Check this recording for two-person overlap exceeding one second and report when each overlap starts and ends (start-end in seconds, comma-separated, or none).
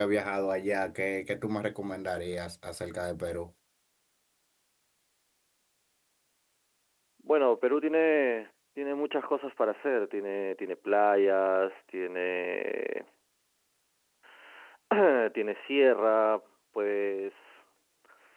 none